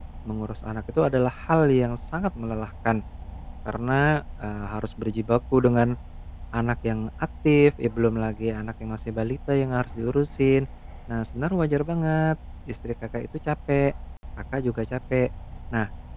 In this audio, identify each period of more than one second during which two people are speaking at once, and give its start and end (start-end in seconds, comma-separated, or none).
none